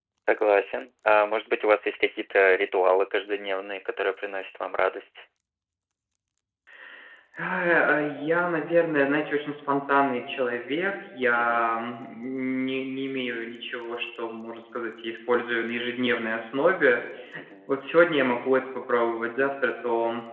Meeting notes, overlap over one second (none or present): none